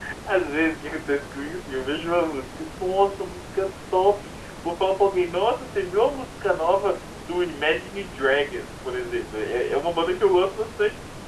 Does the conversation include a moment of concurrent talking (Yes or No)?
No